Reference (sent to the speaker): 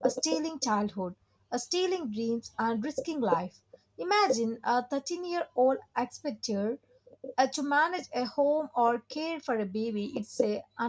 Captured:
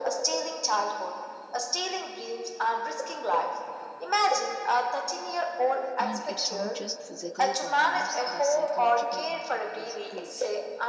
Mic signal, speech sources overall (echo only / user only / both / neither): both